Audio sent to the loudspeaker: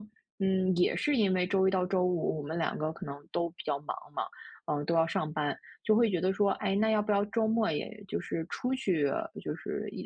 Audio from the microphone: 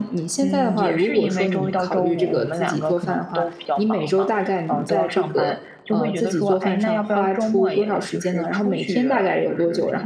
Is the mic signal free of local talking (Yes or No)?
No